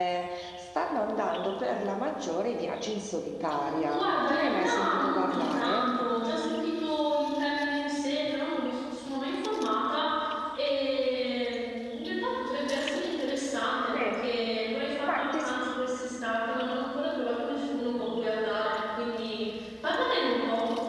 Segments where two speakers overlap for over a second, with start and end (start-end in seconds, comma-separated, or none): 3.6-5.9